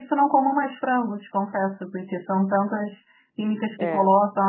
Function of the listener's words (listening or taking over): listening